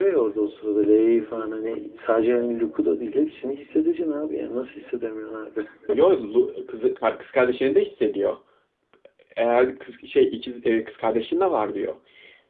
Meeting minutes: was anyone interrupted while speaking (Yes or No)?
No